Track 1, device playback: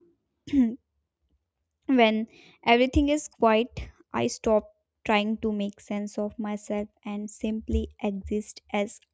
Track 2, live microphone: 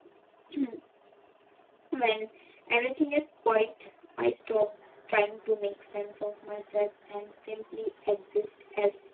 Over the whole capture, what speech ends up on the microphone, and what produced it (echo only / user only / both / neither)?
echo only